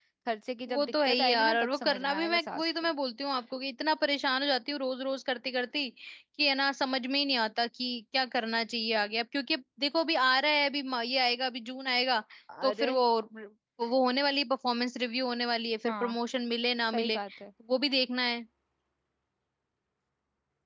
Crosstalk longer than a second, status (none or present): present